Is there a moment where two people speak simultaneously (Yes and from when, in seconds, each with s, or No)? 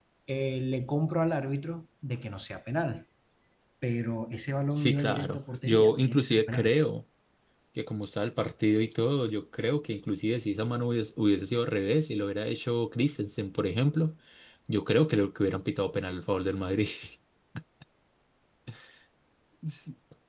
Yes, from 4.7 s